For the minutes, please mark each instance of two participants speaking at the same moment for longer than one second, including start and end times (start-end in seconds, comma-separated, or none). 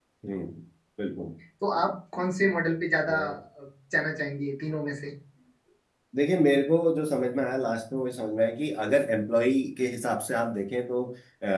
none